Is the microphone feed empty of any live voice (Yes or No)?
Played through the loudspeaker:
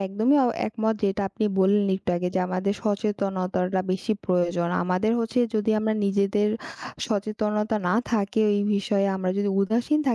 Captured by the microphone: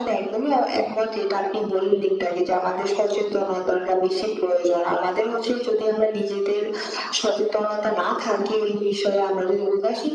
Yes